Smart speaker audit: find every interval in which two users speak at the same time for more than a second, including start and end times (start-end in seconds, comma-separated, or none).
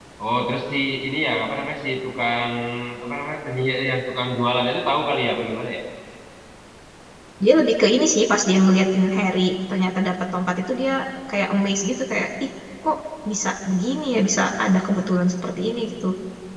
none